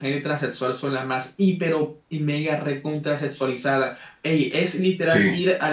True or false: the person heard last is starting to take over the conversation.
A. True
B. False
B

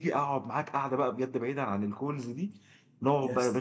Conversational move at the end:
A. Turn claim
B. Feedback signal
B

